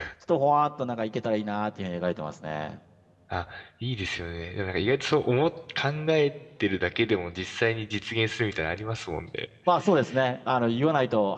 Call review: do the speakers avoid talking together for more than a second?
Yes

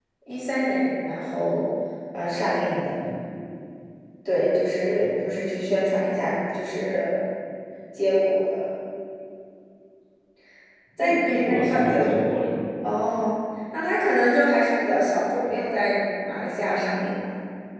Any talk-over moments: Yes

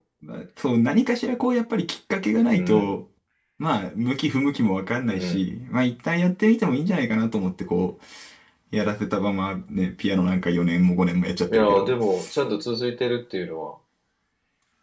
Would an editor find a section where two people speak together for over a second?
No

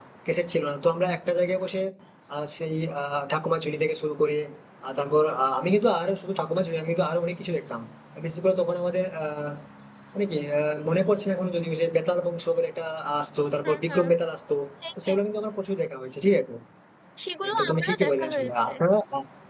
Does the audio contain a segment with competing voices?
Yes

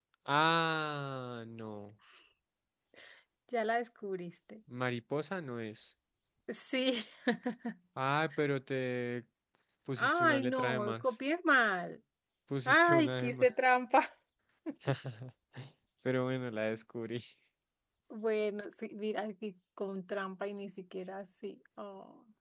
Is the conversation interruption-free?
No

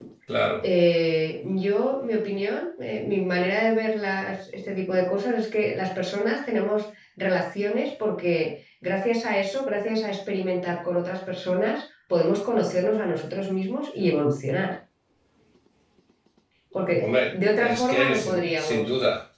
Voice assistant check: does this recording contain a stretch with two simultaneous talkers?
Yes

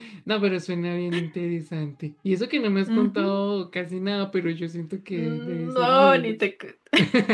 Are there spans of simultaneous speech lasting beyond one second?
Yes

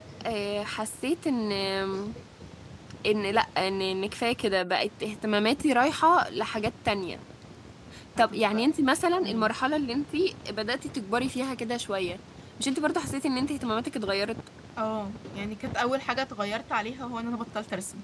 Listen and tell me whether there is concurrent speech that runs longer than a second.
No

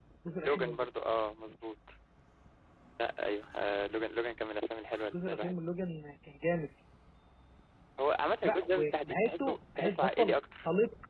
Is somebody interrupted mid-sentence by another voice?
Yes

